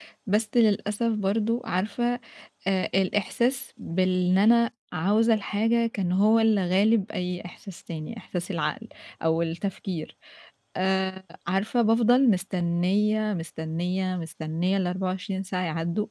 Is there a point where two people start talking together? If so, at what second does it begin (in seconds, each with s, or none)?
none